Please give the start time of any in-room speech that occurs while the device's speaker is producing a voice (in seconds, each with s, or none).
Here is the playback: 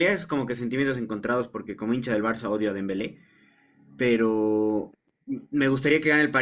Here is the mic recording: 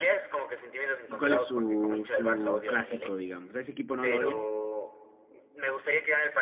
1.1 s